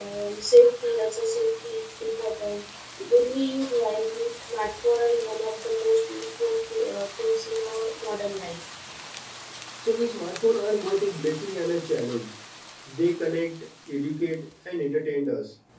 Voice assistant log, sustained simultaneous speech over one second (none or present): none